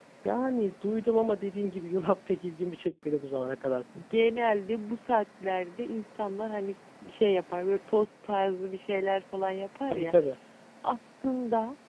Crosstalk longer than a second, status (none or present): none